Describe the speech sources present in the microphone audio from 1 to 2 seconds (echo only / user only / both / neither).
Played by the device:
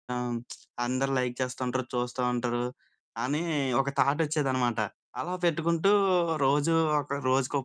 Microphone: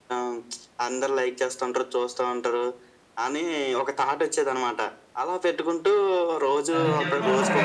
echo only